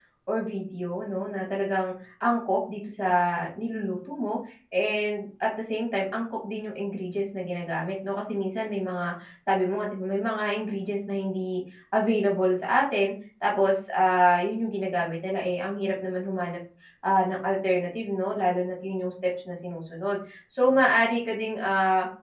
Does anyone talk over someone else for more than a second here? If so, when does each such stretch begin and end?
none

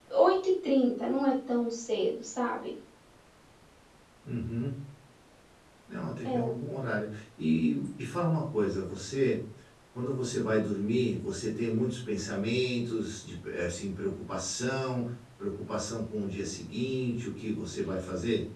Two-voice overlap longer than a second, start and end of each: none

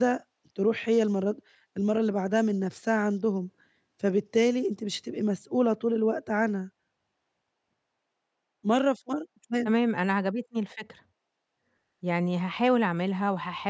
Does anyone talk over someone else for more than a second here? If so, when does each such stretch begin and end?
none

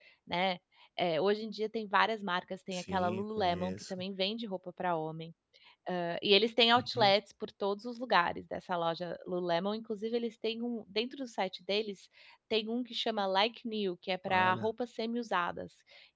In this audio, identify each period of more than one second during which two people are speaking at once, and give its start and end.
2.7-3.9

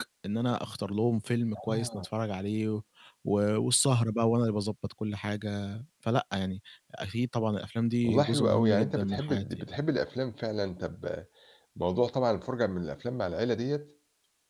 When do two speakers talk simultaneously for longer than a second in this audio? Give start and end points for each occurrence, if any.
8.0-9.7

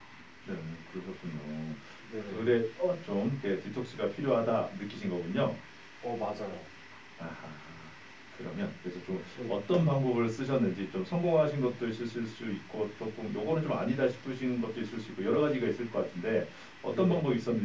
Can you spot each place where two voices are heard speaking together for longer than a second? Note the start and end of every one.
none

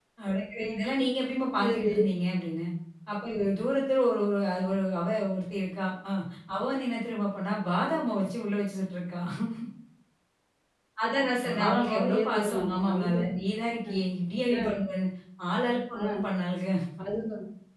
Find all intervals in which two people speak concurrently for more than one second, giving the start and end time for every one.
11.4-13.2

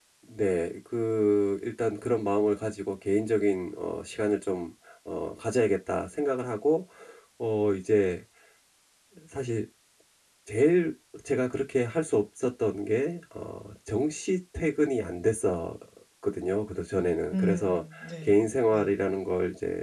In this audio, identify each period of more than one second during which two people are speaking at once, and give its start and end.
17.3-19.0

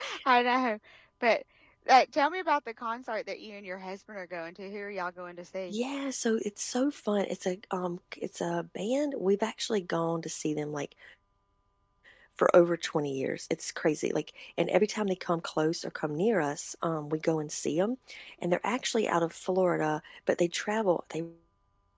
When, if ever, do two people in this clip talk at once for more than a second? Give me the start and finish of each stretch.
none

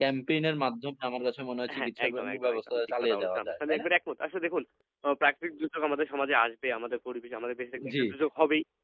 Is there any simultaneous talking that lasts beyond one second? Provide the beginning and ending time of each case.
1.8-3.9

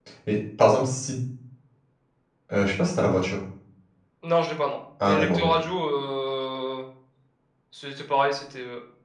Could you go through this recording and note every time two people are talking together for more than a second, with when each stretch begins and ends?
none

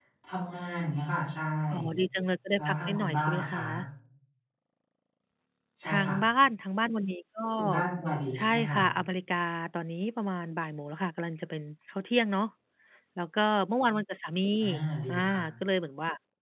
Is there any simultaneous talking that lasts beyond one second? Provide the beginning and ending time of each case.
2.6-3.8

